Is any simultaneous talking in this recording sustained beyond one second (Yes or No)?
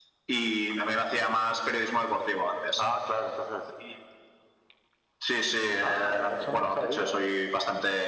Yes